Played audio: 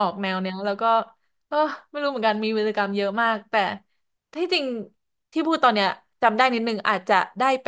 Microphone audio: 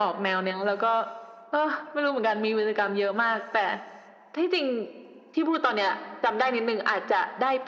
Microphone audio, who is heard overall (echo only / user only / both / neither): echo only